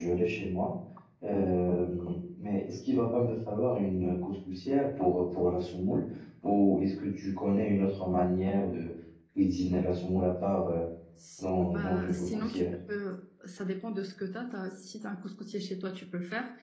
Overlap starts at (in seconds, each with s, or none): 11.4 s